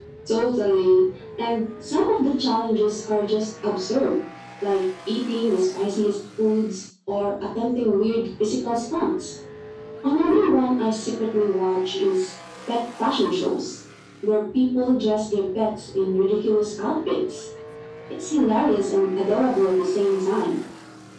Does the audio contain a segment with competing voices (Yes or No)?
No